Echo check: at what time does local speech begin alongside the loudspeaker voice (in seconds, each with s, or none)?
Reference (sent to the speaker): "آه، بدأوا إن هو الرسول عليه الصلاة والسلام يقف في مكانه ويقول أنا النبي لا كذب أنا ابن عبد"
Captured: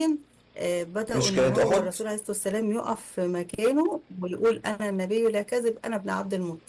1.1 s